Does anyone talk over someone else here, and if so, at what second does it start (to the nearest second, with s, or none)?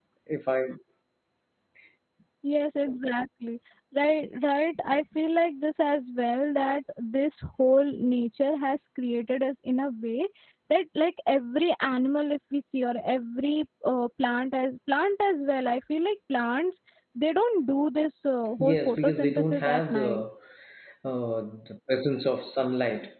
19 s